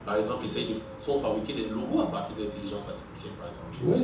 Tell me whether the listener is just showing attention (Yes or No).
No